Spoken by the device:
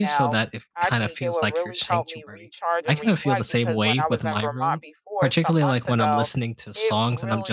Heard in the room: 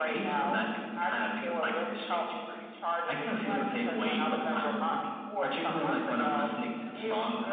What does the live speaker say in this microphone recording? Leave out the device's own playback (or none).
none